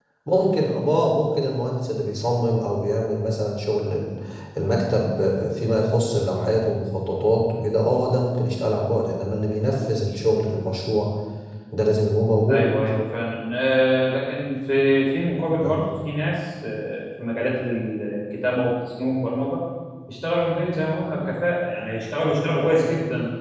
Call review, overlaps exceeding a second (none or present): none